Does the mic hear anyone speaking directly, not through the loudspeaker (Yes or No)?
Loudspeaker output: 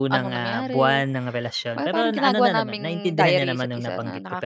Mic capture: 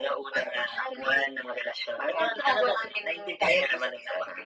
No